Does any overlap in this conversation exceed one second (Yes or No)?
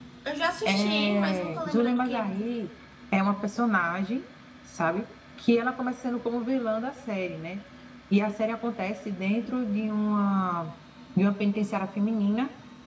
Yes